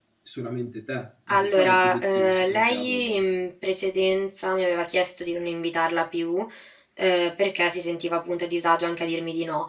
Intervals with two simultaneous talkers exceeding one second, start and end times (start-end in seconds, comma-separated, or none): 1.3-3.0